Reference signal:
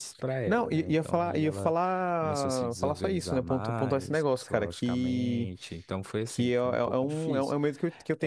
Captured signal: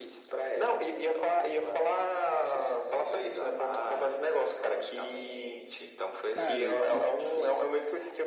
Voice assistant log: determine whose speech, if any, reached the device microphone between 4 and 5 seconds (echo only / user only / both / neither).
echo only